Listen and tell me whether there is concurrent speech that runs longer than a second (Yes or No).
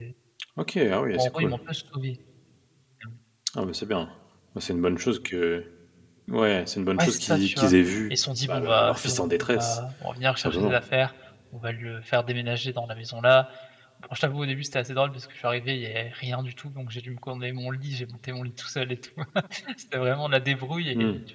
Yes